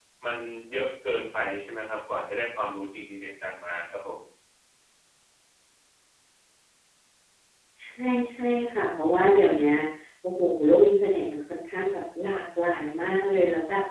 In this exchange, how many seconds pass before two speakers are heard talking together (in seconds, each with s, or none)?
none